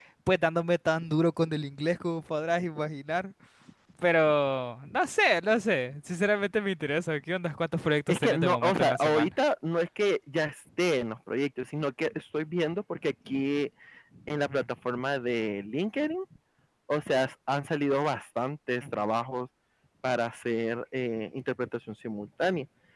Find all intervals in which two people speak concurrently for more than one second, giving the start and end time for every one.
8.1-9.3

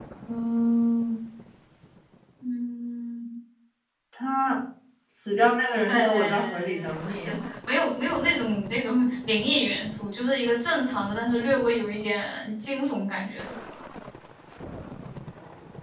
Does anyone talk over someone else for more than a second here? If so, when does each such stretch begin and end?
5.9-7.4

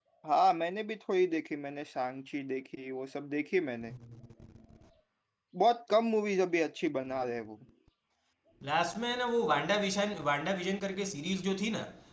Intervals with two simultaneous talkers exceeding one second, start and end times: none

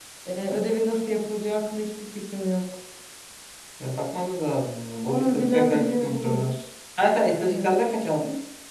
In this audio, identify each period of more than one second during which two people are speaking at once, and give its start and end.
5.1-6.5

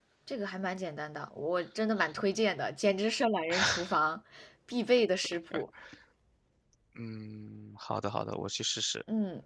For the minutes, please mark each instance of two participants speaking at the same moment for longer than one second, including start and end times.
none

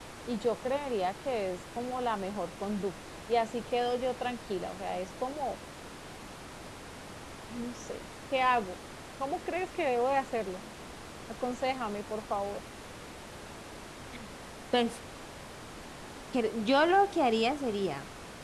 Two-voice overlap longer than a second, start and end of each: none

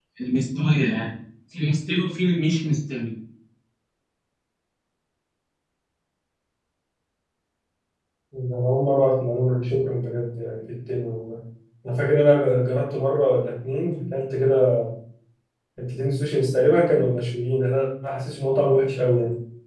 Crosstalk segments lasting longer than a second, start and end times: none

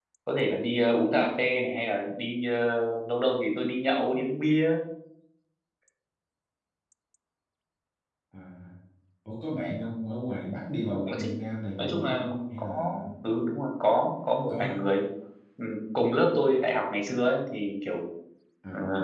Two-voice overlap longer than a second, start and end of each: 11.8-13.0

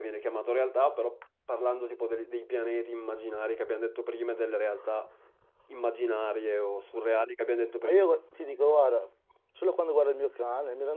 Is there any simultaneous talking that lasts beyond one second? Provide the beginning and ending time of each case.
none

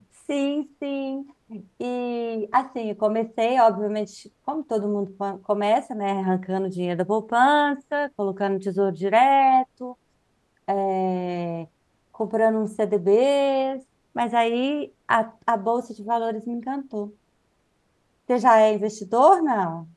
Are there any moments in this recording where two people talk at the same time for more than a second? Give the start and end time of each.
none

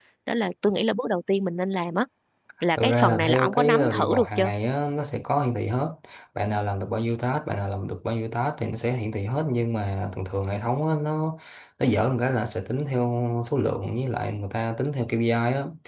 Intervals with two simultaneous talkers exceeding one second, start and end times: 2.8-4.5

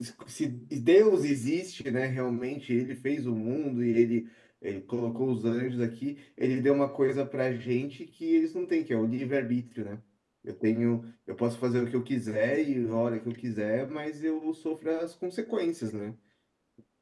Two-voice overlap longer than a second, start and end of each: none

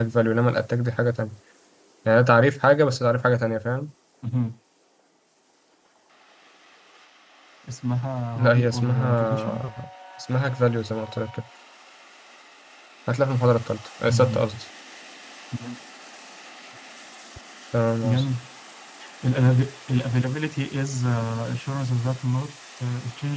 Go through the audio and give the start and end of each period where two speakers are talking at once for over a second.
8.4-9.6

